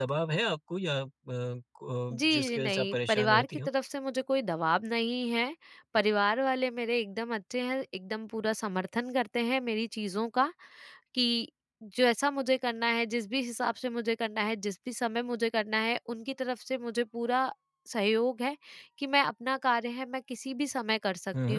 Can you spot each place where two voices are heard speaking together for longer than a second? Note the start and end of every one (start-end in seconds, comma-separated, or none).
2.1-3.7